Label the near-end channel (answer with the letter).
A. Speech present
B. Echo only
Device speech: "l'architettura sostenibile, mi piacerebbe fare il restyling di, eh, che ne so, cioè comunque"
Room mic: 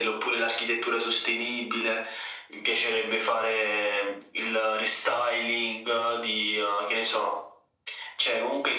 B